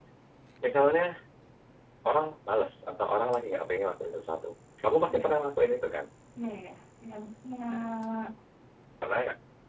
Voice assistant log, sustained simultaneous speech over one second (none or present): none